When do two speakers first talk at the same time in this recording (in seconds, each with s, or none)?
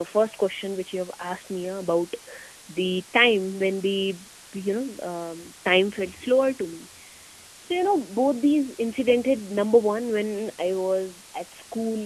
none